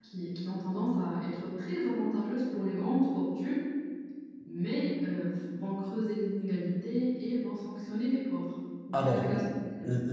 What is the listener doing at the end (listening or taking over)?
taking over